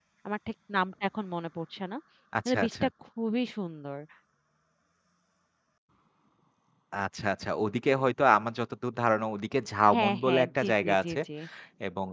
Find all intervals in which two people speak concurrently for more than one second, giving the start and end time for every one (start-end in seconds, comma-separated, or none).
9.9-11.2